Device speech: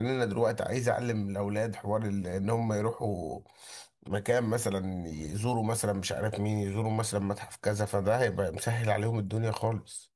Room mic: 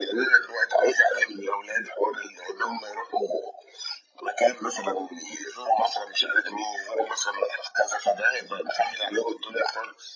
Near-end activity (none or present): none